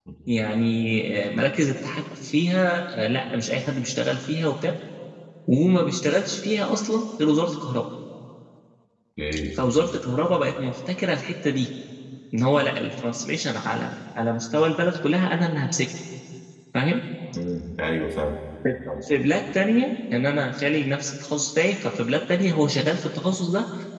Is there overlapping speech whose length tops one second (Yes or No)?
No